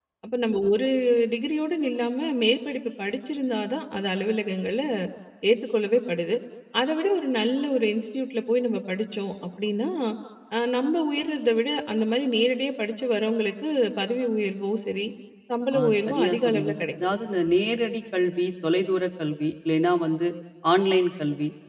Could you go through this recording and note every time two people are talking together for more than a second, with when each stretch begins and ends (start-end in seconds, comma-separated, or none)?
15.8-17.1